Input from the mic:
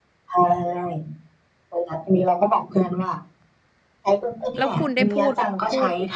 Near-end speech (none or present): present